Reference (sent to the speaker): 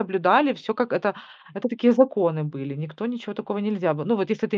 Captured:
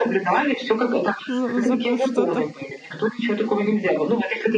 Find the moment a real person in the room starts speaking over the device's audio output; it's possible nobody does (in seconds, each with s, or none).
1.3 s